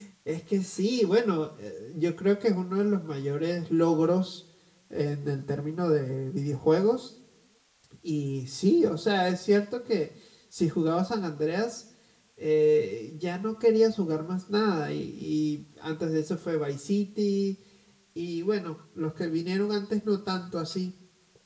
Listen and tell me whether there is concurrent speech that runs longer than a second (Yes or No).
No